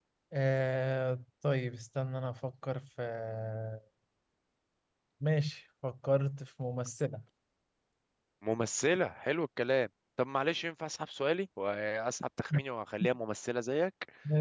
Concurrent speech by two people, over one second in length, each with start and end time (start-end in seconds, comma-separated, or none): none